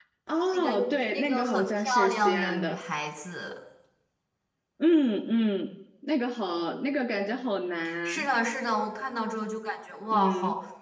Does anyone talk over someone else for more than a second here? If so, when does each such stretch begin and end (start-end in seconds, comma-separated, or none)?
1.1-2.8